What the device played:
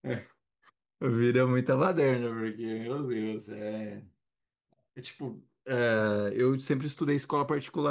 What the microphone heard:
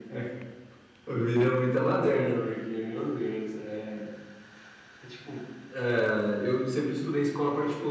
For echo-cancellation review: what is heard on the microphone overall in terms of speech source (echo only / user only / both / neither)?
echo only